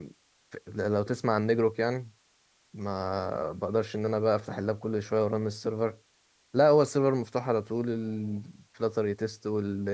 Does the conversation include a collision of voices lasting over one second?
No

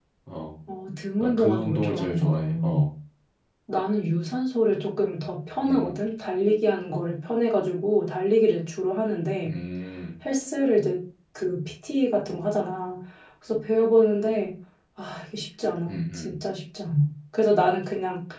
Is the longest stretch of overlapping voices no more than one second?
No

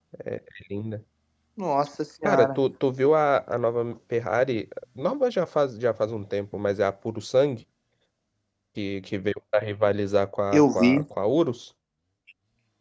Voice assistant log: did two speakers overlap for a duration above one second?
No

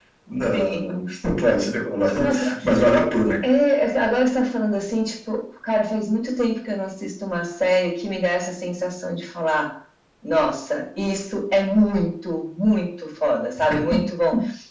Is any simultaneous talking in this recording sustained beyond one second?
No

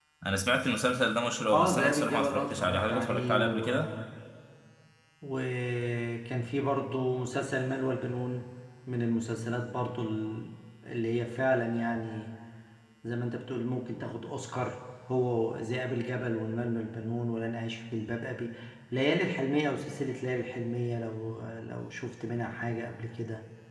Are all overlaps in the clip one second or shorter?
No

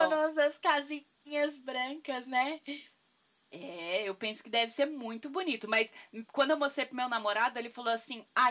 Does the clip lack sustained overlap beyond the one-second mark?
Yes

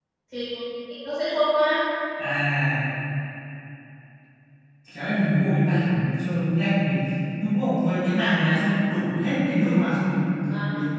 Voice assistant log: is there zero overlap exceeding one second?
Yes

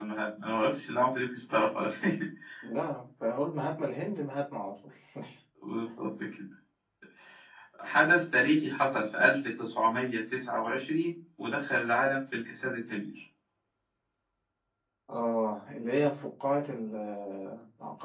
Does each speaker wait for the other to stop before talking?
Yes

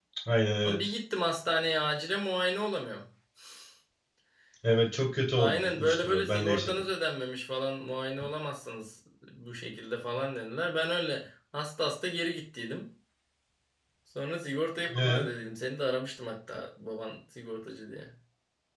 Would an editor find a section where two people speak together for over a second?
Yes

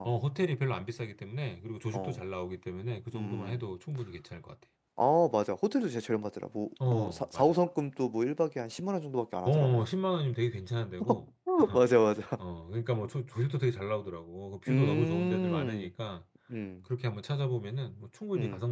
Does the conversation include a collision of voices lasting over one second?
Yes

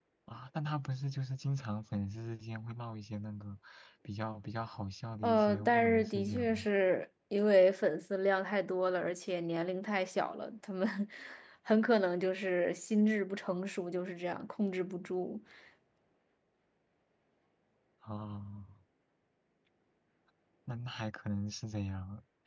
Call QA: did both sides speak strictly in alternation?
No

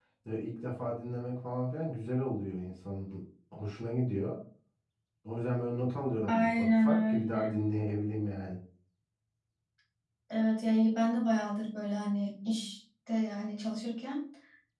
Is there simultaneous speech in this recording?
Yes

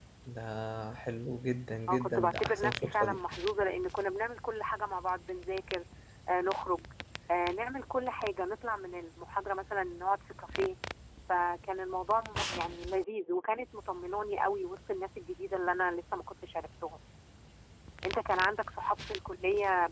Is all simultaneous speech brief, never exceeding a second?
No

